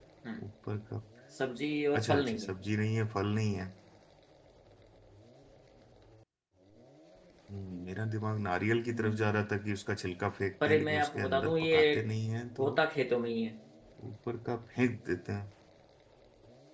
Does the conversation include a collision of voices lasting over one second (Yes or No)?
Yes